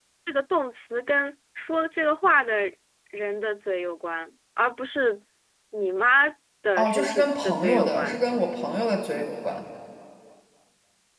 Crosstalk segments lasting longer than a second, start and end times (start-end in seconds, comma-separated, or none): 6.8-8.1